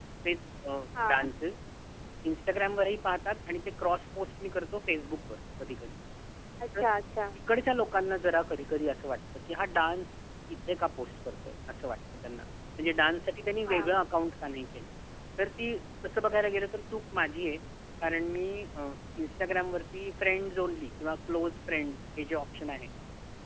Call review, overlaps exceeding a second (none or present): none